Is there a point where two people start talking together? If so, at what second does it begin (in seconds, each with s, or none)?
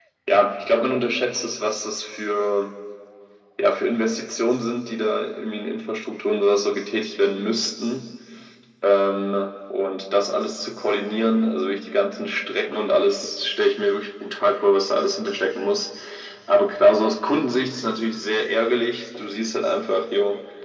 none